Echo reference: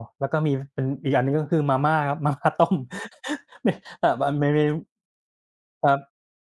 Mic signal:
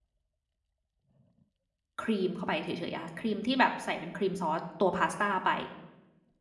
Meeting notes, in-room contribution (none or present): present